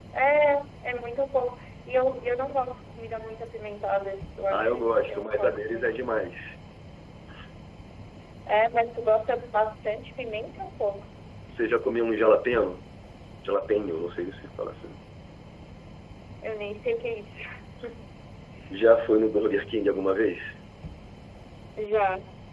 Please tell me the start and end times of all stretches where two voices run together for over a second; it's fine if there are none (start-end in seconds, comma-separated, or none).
4.5-6.0